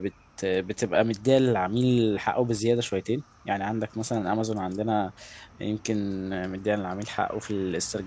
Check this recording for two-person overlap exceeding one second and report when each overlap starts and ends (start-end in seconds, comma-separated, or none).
none